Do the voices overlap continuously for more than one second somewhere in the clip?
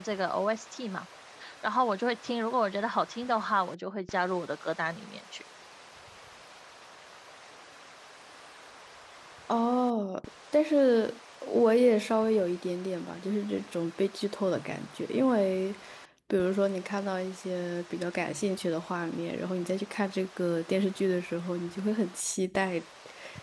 No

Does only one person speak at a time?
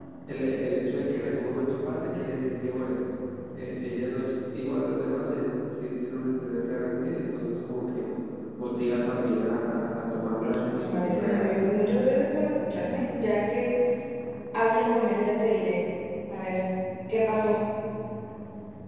No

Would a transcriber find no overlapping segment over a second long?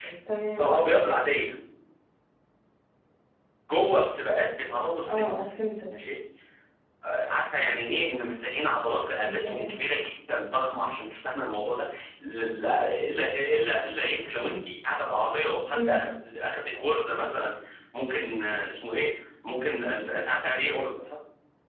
Yes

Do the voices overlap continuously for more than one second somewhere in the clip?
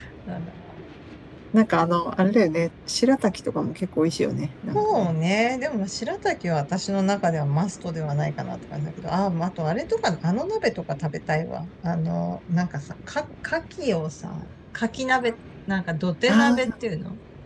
No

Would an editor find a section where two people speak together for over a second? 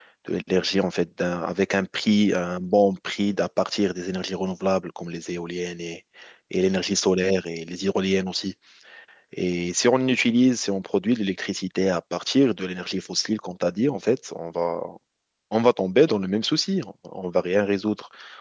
No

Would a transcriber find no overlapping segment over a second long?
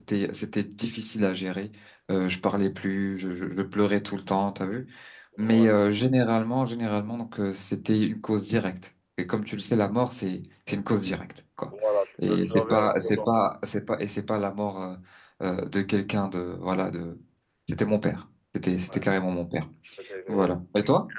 No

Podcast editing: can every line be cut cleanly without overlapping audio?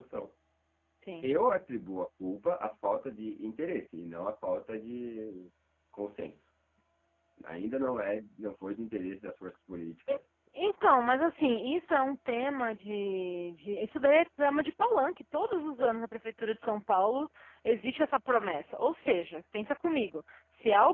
Yes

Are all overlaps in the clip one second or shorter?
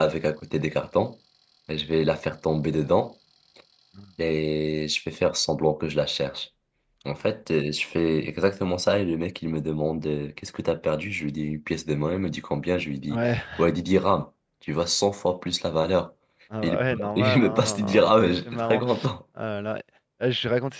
No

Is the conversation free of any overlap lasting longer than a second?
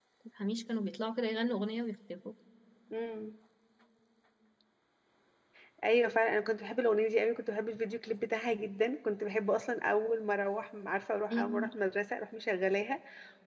Yes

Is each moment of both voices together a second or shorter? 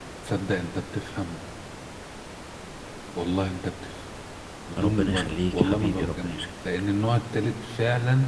No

